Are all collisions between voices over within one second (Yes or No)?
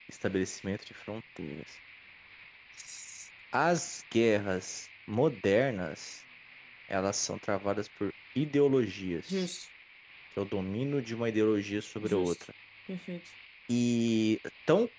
Yes